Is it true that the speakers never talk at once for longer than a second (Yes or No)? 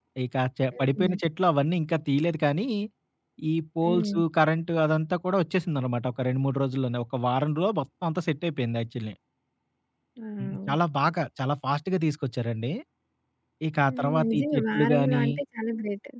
No